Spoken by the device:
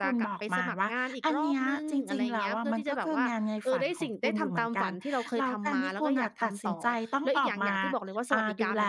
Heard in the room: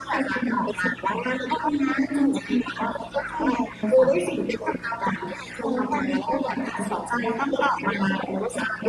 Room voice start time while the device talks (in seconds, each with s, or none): none